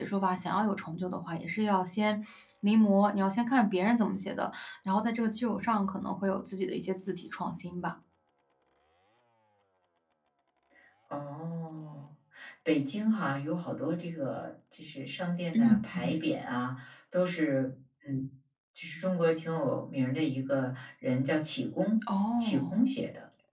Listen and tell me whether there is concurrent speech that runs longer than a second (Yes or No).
No